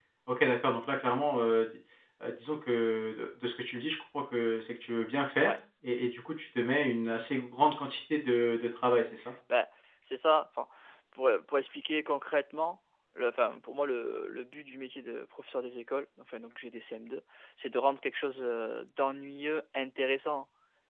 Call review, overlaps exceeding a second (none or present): none